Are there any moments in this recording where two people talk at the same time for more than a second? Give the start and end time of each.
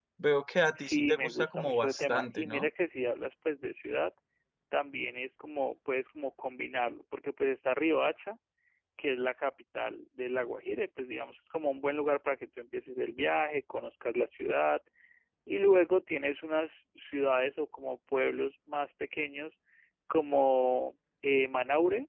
0.8-2.7

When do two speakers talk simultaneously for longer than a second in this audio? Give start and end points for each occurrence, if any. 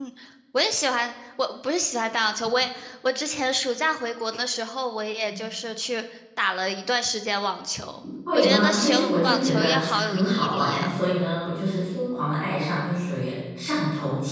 8.3-10.9

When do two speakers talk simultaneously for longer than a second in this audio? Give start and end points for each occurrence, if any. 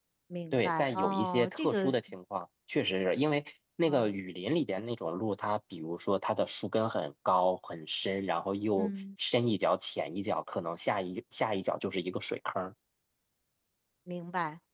0.5-1.9

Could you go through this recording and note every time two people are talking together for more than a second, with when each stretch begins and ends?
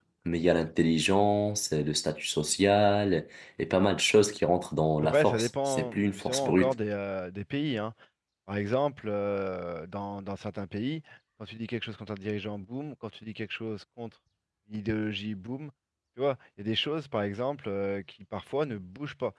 5.0-6.7

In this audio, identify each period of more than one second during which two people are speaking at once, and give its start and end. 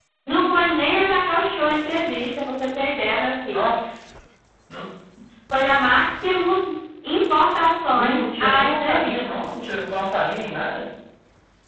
7.9-9.4

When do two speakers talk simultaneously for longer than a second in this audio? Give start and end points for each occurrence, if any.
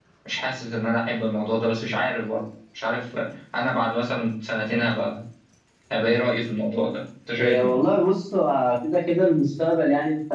none

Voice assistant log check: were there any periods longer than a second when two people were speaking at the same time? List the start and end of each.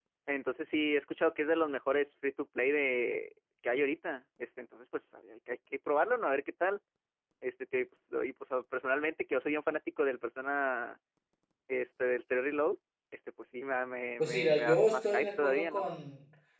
14.2-15.8

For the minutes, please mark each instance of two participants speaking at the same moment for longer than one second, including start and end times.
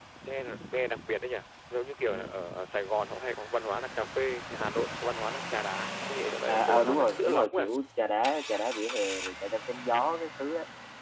6.5-7.7

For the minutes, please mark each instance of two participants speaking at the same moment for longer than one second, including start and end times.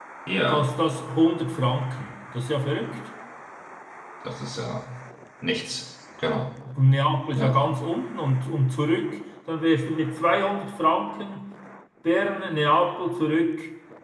none

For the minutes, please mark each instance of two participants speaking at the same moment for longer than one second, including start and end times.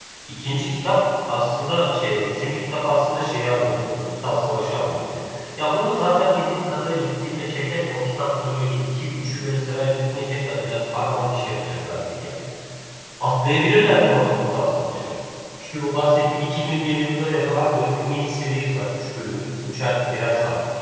none

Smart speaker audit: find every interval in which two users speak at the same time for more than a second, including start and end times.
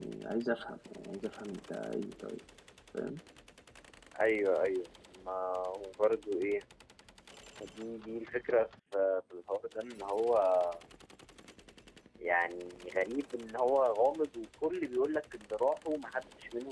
none

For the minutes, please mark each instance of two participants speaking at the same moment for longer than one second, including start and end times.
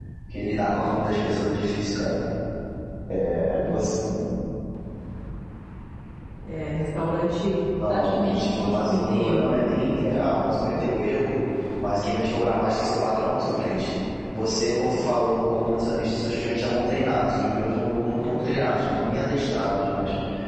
7.9-10.2

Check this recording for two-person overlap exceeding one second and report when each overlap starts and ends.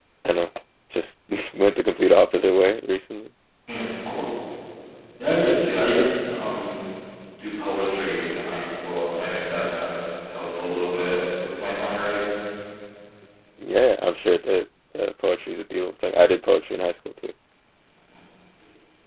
none

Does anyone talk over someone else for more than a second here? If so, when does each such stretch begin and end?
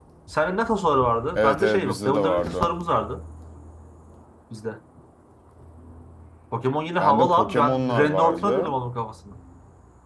1.4-2.8, 7.0-8.7

